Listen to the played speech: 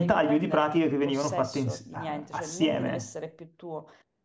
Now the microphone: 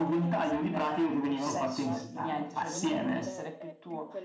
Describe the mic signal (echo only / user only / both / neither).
both